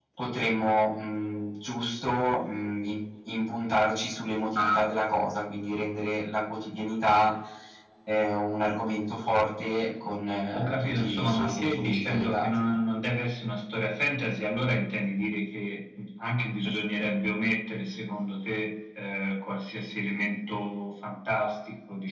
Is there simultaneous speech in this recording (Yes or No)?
Yes